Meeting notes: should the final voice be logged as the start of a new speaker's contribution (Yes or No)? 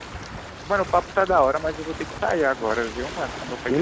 Yes